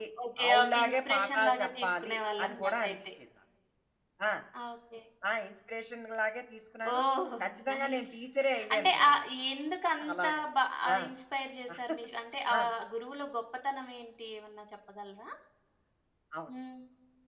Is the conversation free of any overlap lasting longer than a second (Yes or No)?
No